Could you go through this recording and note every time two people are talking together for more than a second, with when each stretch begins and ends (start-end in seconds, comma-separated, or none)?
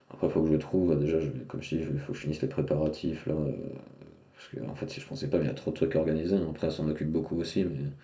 none